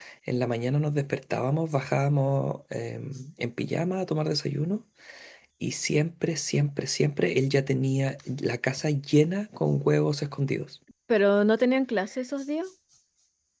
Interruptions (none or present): none